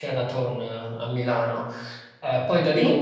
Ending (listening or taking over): listening